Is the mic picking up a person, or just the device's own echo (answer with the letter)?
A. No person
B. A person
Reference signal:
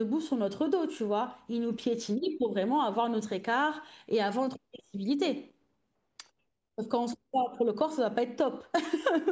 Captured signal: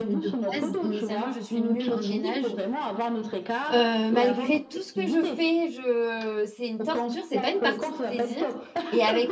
B